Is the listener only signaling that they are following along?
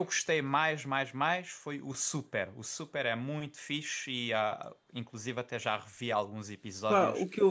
No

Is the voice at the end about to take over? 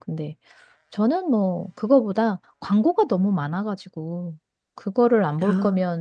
No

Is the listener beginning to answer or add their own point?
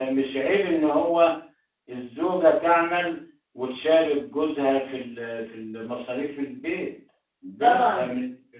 Yes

